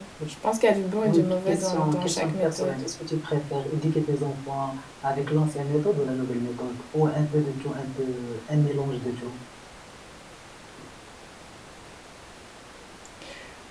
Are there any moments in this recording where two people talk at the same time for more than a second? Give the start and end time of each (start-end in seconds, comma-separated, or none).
1.0-2.8